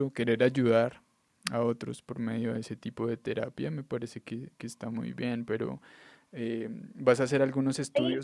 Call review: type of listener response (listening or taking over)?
listening